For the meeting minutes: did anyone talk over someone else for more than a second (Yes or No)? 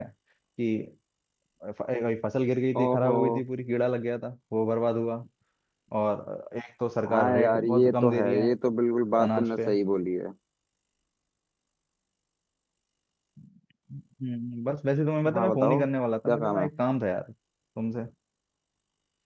Yes